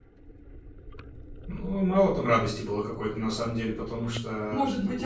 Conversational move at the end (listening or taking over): taking over